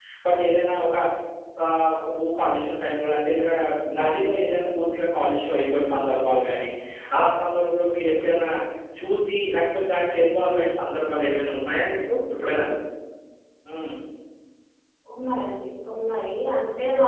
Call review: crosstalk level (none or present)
none